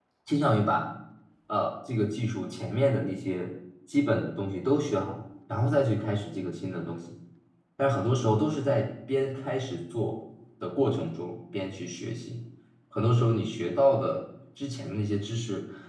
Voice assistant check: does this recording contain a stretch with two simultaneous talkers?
No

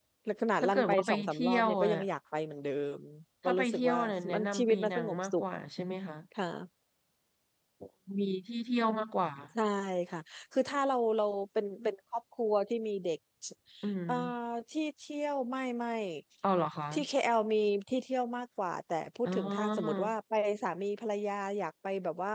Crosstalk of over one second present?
Yes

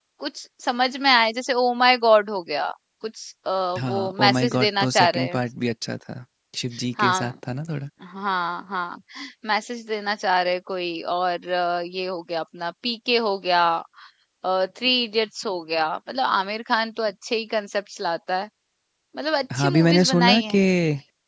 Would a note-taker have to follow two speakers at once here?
Yes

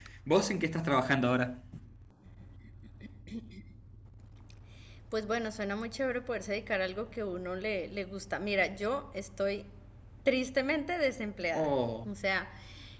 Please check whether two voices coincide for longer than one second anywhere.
No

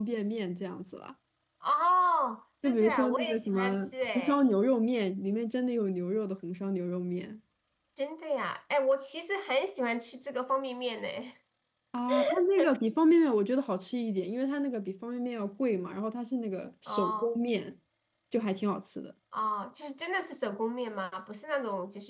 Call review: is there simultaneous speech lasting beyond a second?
Yes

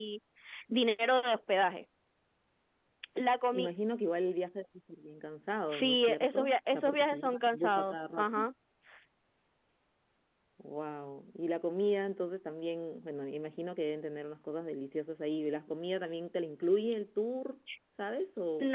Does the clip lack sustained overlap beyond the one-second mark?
No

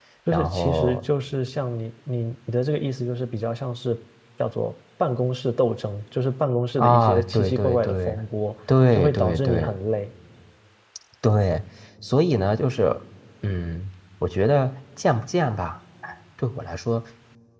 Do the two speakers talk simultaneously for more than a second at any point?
Yes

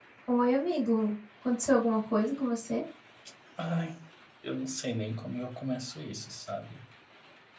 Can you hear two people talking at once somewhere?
No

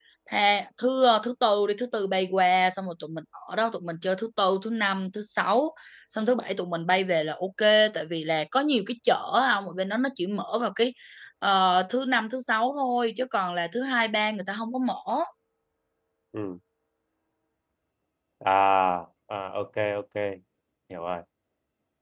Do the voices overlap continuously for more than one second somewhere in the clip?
No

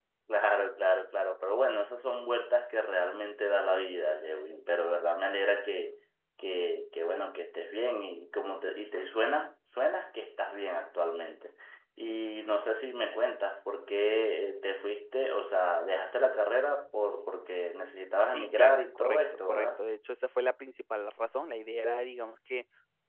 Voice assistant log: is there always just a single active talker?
No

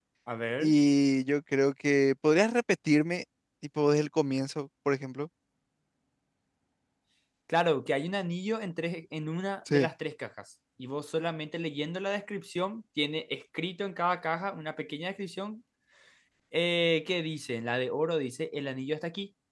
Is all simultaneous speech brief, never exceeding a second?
Yes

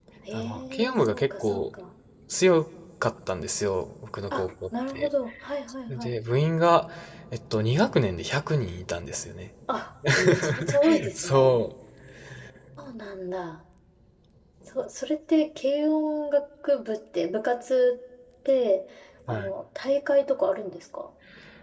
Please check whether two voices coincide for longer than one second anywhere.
Yes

